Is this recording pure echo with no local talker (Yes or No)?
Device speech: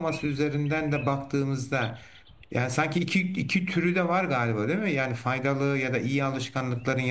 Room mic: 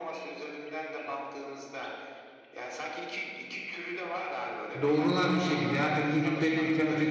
No